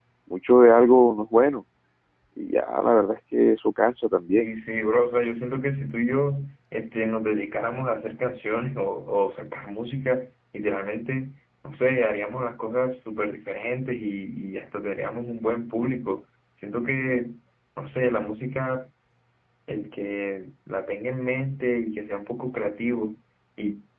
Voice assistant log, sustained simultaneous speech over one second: none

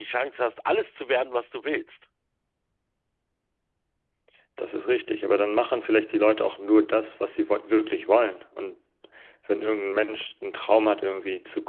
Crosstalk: none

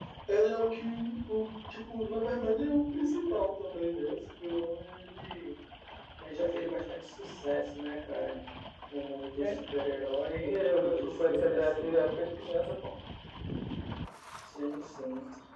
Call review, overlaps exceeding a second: present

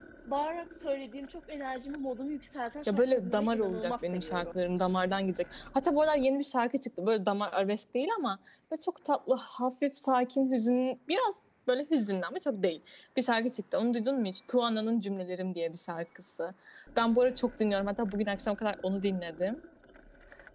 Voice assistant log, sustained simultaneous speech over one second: present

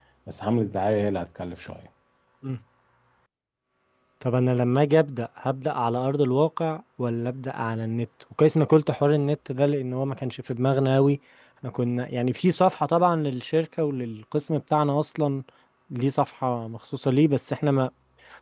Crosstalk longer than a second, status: none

